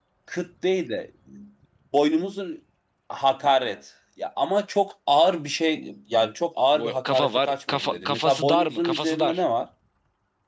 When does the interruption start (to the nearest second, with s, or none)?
7 s